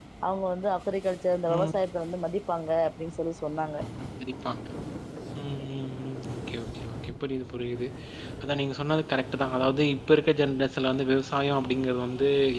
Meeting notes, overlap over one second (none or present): none